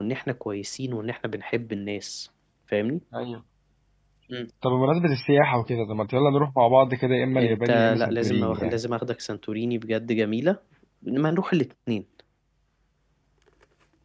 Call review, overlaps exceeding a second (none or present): present